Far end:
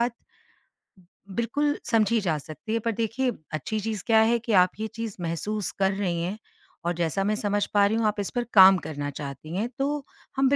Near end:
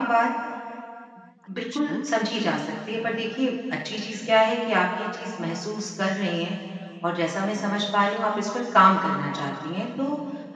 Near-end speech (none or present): present